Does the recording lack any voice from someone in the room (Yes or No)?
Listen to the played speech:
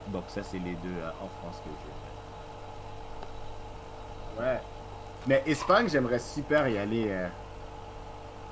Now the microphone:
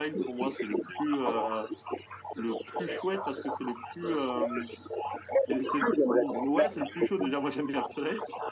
No